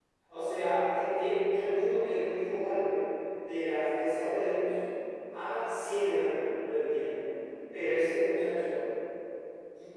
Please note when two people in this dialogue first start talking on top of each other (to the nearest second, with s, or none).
none